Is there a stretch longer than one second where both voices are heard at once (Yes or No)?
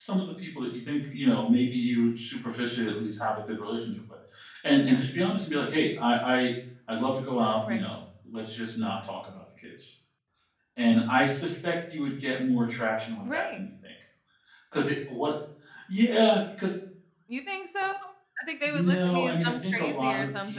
Yes